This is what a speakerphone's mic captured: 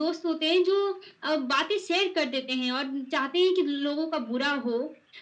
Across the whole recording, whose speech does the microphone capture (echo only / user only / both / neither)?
echo only